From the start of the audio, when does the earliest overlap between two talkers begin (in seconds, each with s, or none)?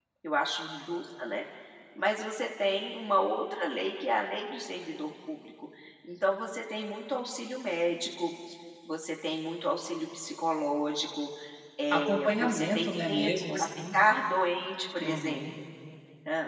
11.9 s